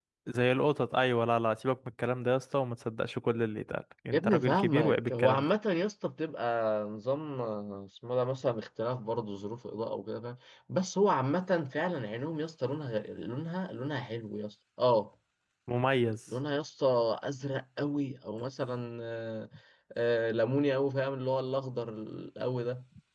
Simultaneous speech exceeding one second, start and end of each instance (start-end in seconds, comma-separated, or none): 4.1-5.5